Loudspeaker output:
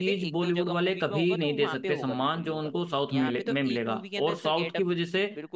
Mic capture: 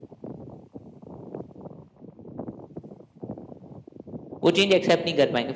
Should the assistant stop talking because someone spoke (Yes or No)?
Yes